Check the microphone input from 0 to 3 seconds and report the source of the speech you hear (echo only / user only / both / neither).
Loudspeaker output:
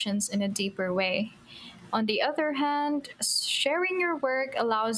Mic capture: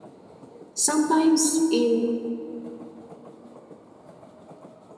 user only